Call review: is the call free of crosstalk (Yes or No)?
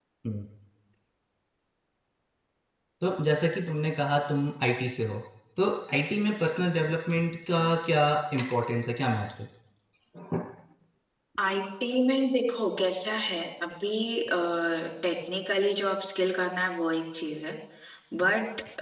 Yes